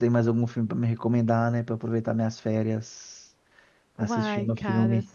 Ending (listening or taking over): taking over